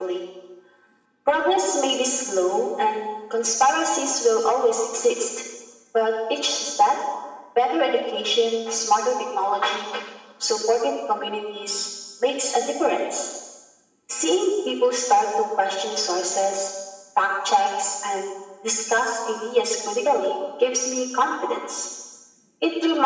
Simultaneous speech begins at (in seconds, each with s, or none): none